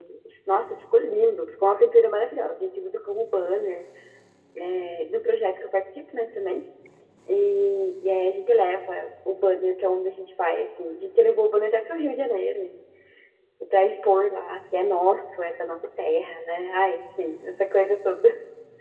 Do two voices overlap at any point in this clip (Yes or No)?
No